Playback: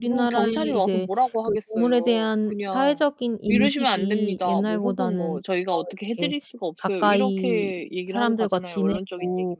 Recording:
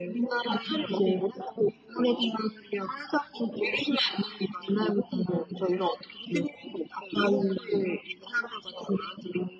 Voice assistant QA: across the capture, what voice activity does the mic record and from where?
echo only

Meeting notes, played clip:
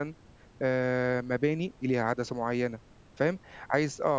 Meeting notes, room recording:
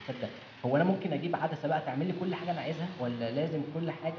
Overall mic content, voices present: user only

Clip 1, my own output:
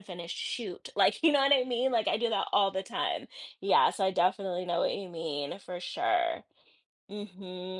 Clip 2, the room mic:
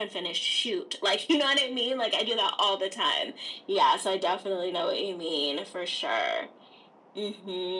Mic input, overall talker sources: echo only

